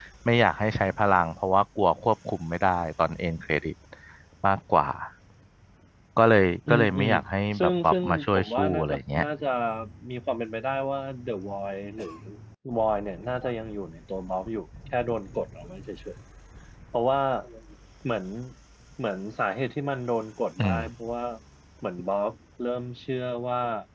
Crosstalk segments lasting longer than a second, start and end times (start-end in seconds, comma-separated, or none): 7.6-9.2